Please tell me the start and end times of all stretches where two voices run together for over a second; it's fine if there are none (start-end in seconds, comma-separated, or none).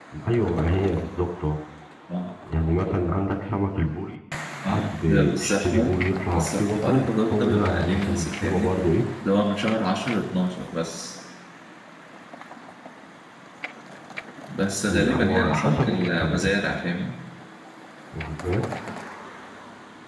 4.7-6.0, 6.3-8.7, 14.9-16.5